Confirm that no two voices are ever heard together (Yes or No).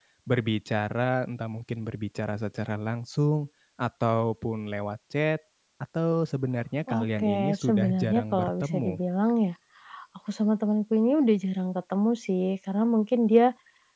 No